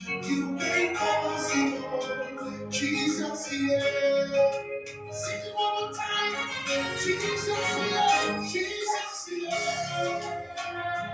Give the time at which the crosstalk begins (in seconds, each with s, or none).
none